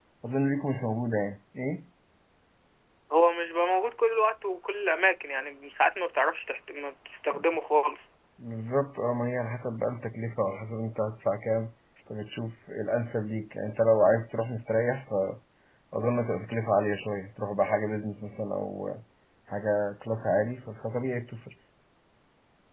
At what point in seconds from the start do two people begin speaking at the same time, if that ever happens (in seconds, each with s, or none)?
none